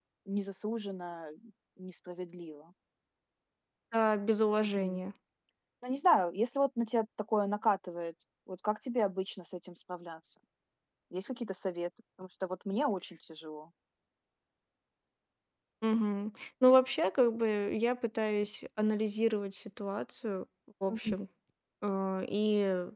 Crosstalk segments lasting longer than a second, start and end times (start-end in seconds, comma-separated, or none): none